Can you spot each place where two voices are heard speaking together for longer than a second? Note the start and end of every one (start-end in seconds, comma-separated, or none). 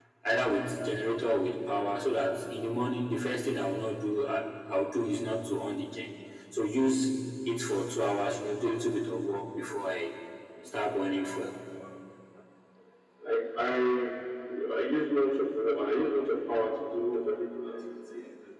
none